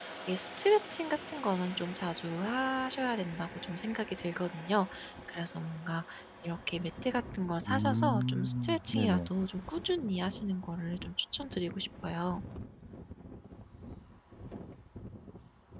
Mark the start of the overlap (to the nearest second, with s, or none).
8 s